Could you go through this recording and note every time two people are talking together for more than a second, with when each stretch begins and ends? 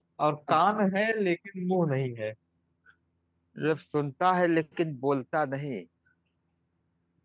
none

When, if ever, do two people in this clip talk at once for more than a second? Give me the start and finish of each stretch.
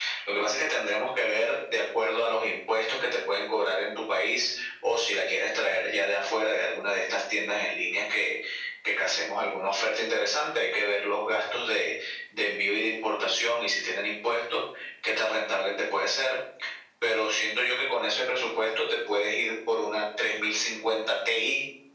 none

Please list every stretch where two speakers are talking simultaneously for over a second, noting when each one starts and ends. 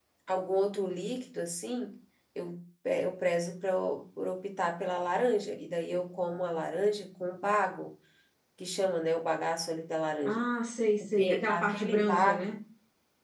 11.2-12.6

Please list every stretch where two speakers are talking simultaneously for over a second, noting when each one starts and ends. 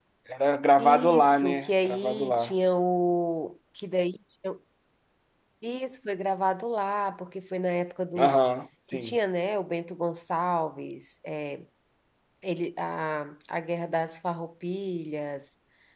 0.8-2.5

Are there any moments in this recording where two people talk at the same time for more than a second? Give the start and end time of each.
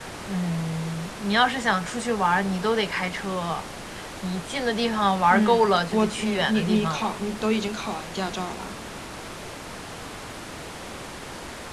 5.3-7.2

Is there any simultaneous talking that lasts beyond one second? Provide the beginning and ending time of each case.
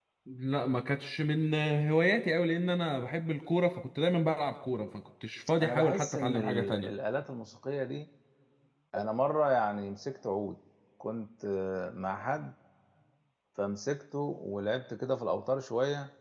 5.6-6.9

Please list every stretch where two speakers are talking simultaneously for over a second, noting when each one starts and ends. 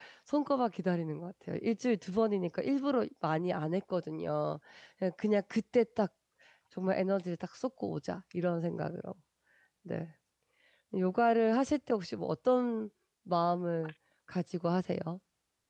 none

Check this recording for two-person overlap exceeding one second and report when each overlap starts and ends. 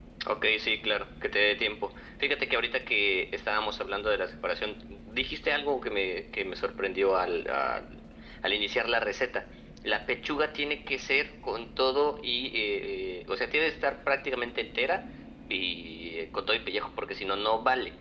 none

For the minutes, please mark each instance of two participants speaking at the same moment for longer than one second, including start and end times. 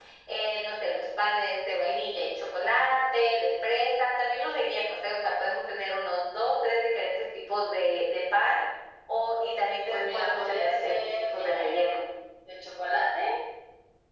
9.9-12.0

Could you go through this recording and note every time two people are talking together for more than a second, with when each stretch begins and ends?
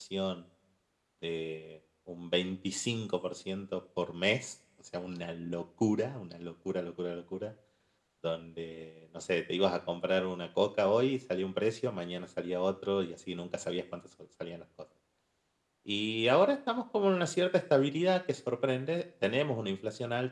none

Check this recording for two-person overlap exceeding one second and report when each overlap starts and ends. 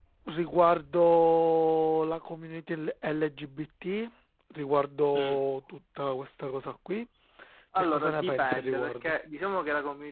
7.8-9.1

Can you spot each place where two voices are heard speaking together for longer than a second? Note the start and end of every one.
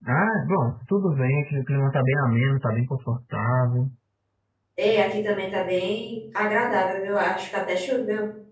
none

